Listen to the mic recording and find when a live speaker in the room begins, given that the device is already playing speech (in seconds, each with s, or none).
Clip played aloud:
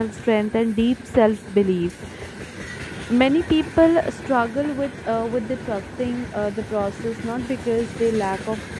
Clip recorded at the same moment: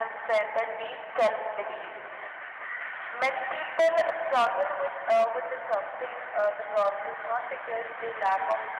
none